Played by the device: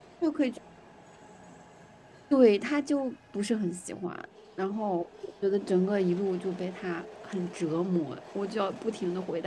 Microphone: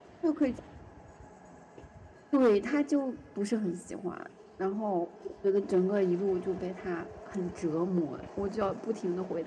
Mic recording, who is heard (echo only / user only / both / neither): echo only